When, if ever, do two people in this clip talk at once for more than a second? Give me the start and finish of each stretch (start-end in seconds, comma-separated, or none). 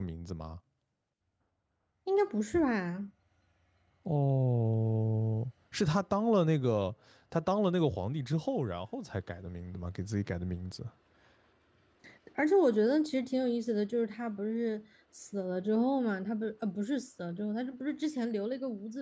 none